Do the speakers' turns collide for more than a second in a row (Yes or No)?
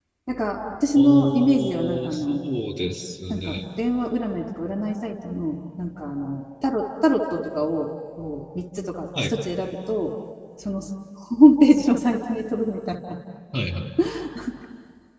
Yes